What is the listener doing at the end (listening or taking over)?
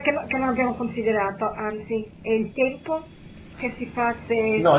taking over